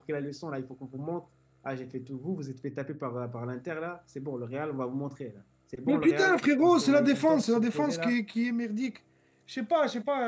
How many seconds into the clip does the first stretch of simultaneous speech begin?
5.9 s

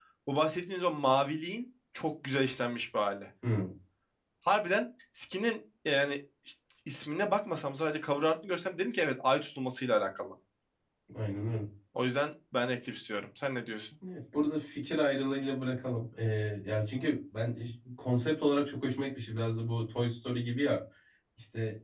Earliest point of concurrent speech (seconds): none

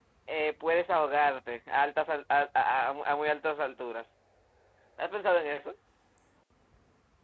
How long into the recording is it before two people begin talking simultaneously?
none

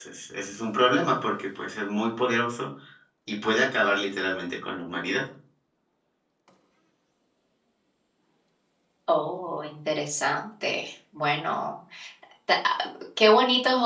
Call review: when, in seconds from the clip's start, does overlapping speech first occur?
none

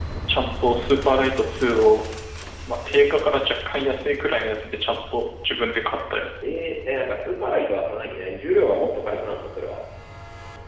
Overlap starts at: none

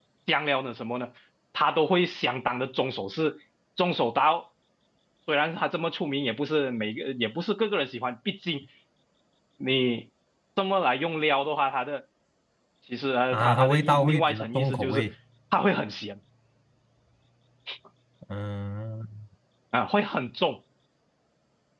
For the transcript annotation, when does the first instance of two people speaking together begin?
13.3 s

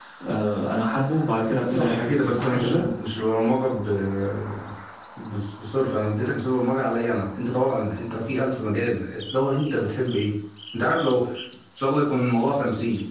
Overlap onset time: 1.5 s

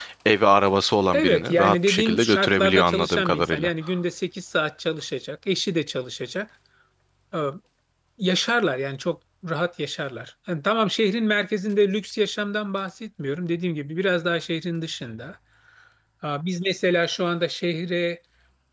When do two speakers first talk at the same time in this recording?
1.1 s

